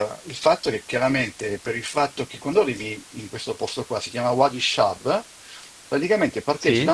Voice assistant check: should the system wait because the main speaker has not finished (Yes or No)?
Yes